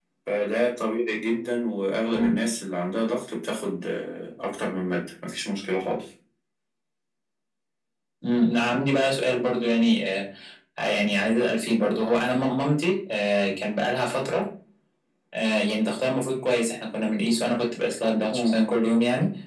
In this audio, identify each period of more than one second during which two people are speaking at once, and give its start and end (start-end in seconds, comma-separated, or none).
none